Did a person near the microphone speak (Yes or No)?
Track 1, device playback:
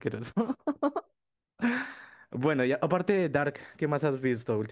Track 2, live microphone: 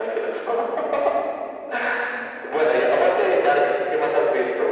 No